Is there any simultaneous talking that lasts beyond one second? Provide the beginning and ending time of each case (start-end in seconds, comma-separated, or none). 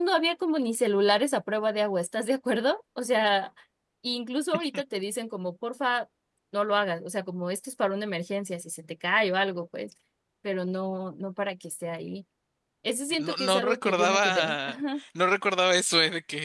13.2-14.8